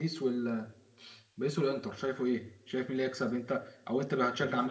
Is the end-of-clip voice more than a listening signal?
Yes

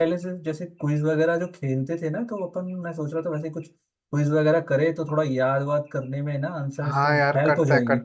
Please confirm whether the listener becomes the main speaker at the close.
Yes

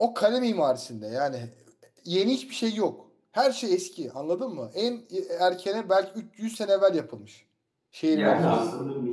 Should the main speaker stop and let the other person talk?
Yes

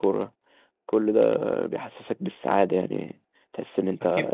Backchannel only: No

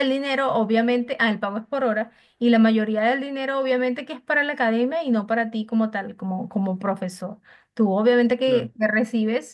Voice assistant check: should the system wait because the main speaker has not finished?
Yes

